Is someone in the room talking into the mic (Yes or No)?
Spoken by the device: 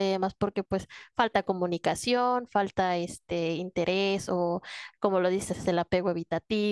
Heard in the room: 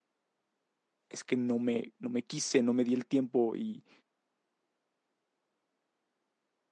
Yes